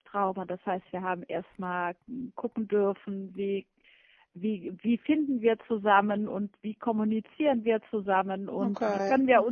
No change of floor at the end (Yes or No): Yes